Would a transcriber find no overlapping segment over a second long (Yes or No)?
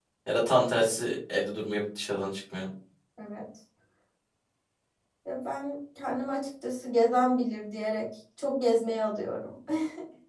Yes